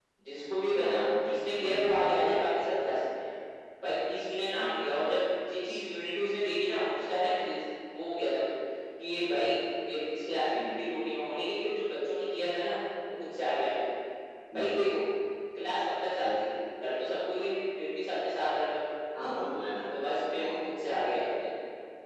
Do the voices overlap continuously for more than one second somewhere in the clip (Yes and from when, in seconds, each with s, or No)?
No